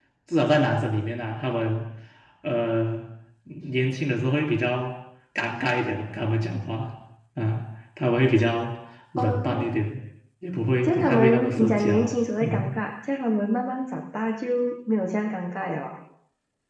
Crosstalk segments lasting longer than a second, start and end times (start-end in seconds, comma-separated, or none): 10.8-12.7